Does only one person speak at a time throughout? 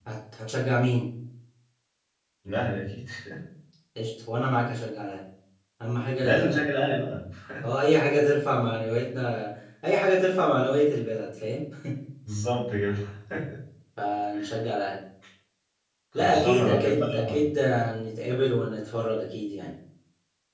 No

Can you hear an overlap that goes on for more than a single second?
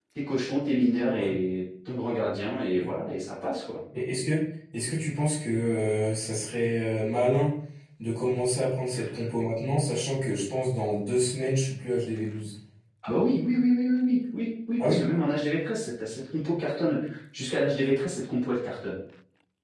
No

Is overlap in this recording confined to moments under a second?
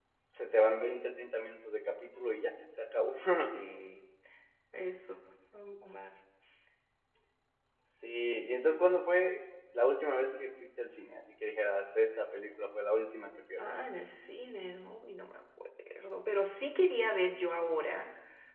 Yes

